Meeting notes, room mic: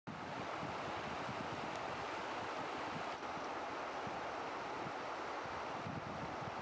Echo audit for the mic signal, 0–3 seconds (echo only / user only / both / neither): neither